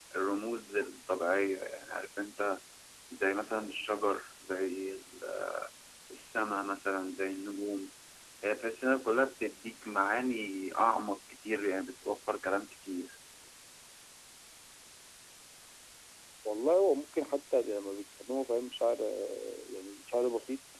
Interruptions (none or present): none